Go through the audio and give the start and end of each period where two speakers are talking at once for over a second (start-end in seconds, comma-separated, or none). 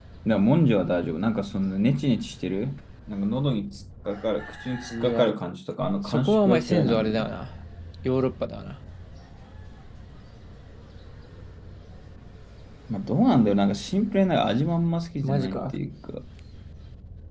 6.0-7.3